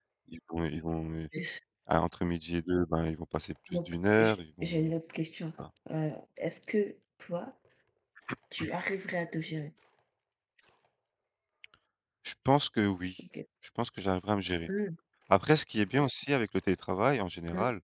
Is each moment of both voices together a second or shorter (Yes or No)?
No